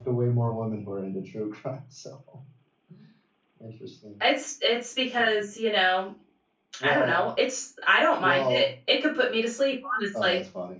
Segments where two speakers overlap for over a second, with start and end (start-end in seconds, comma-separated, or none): none